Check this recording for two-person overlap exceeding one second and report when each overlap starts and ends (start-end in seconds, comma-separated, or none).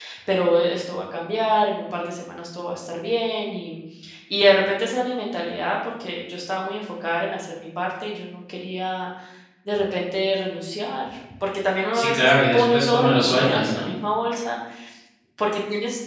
11.9-13.9